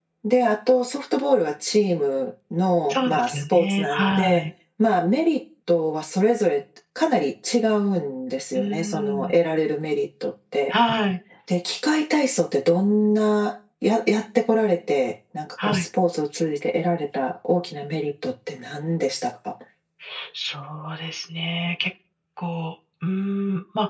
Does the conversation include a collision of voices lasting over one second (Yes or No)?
Yes